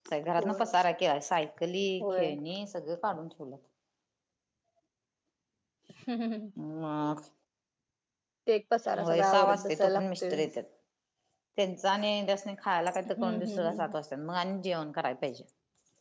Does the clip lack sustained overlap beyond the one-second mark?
No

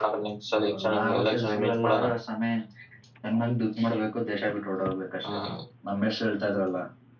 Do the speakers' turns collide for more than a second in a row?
Yes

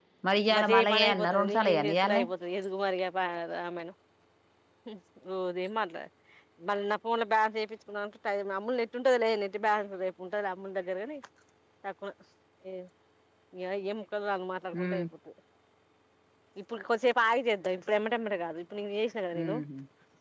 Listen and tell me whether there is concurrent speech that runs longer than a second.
Yes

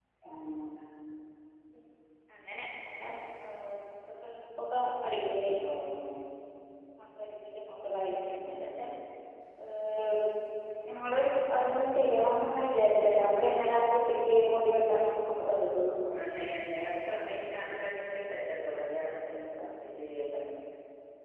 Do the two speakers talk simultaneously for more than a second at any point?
No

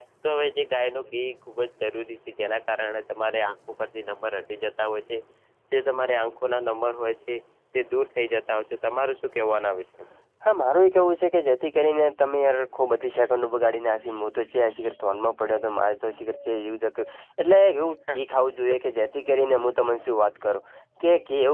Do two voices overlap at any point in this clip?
No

